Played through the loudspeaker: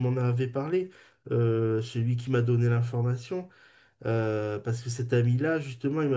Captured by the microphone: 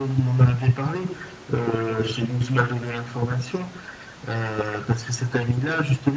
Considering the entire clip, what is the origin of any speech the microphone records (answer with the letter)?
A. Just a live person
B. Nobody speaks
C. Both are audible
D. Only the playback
D